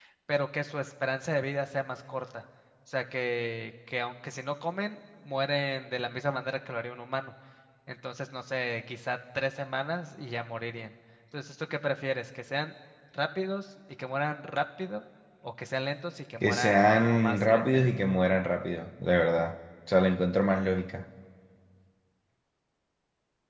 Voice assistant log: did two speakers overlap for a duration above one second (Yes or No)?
Yes